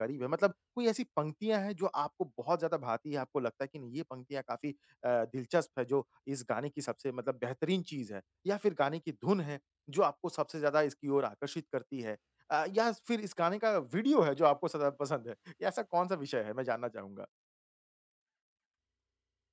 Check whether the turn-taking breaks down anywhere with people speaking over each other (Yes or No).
No